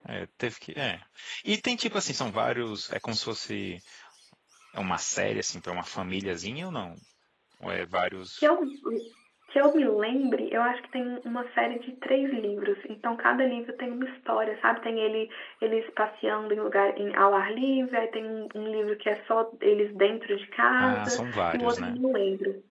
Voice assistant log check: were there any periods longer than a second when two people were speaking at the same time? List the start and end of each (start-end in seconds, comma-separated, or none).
20.8-22.0